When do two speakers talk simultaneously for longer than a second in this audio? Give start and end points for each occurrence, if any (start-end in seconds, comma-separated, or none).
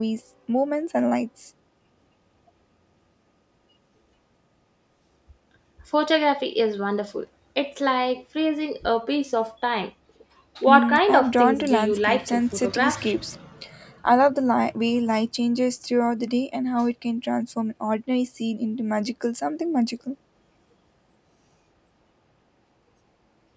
10.7-13.0